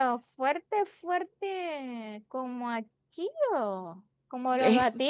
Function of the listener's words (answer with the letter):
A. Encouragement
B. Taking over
B